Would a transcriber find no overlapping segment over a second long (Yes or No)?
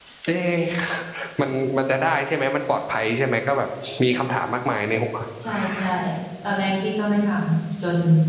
Yes